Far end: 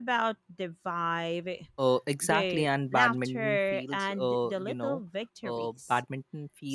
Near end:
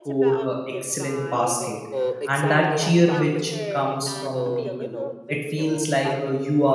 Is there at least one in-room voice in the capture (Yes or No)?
Yes